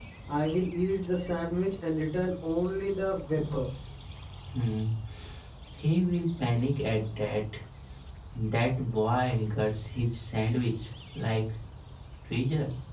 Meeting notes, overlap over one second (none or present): none